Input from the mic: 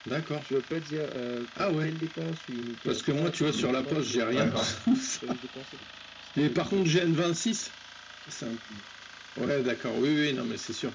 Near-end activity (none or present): present